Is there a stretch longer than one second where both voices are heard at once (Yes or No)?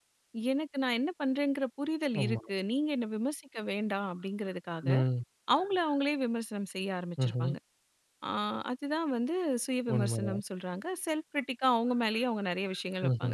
No